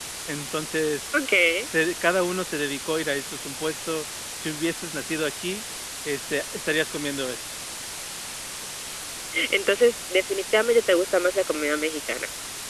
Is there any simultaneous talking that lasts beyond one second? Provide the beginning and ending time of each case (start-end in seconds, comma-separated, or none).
none